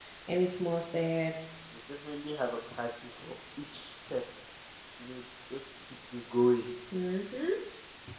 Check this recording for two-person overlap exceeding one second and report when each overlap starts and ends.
none

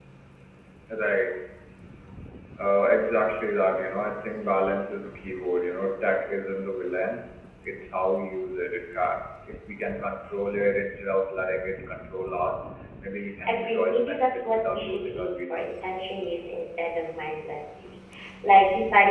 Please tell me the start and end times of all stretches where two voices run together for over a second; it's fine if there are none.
13.5-15.9

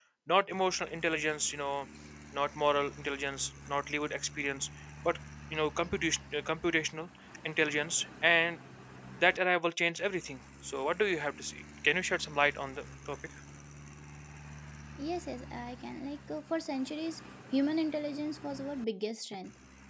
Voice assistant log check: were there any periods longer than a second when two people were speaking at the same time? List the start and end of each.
none

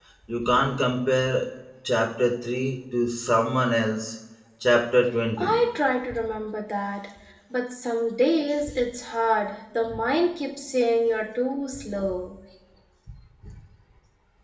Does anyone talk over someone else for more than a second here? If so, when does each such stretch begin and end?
none

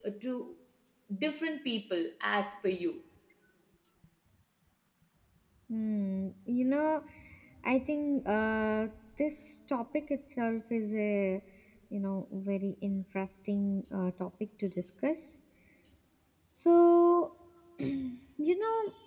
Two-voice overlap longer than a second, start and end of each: none

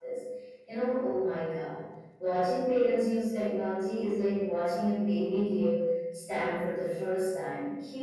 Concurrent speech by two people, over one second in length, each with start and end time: none

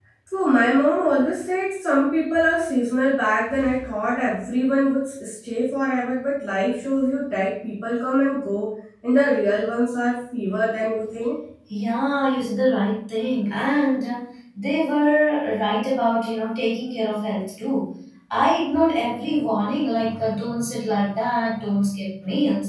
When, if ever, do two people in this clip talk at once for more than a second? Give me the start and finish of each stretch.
none

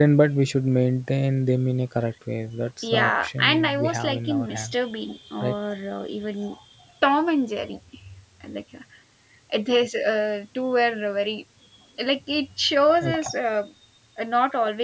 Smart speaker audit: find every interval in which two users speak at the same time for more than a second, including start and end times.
2.8-4.7

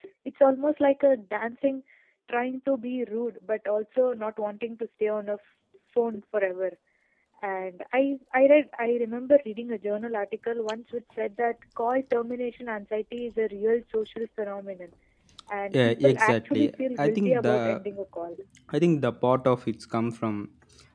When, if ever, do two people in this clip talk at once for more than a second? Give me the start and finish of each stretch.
15.7-17.8

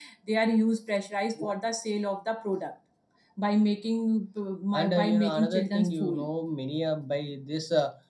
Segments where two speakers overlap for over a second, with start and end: 4.7-6.3

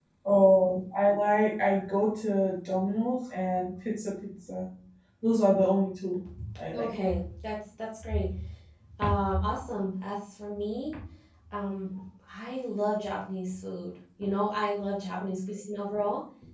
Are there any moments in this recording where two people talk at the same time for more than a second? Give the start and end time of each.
none

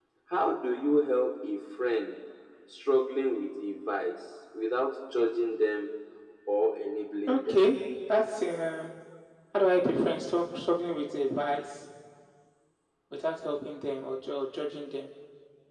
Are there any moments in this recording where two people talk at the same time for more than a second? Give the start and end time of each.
none

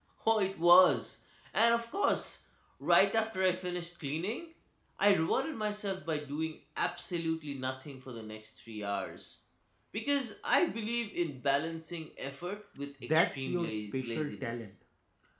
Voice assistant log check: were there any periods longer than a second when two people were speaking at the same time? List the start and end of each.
13.1-14.7

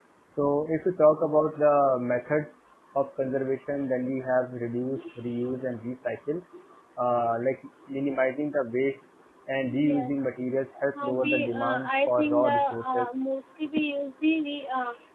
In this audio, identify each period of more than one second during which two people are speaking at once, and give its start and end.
11.0-13.1

